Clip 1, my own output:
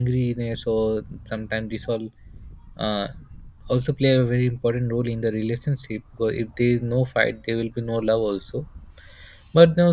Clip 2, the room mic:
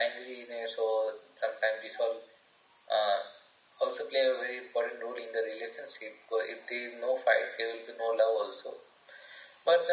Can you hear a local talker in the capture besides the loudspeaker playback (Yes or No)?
No